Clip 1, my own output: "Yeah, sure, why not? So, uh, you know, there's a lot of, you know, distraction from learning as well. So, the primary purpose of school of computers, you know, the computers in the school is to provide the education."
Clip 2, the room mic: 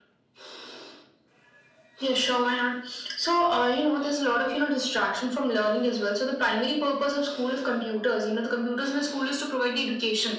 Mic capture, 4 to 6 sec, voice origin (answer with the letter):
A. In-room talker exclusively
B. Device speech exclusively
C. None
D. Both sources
B